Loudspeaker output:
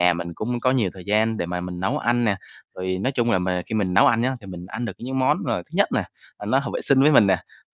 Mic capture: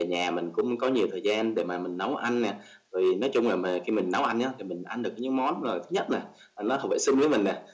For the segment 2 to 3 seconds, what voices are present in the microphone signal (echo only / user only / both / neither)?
echo only